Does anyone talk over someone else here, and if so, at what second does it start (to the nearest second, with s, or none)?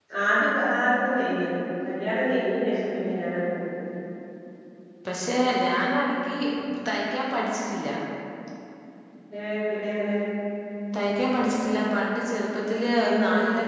none